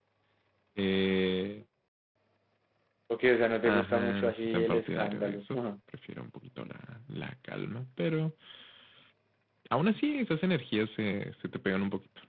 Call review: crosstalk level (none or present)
present